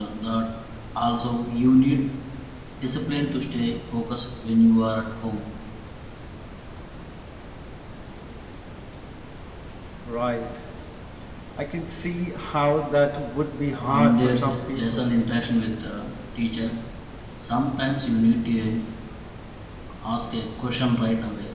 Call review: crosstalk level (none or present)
present